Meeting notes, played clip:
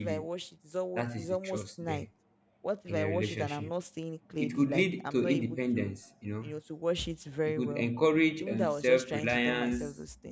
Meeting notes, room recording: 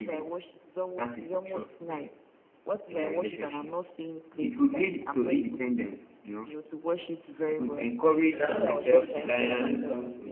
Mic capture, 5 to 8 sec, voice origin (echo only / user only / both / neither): echo only